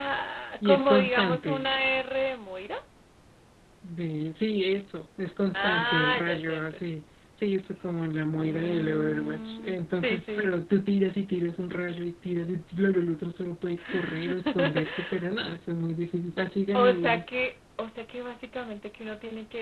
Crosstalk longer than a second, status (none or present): present